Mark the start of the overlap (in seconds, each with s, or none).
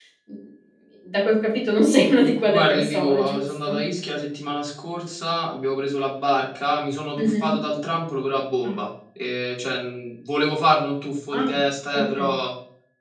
2.2 s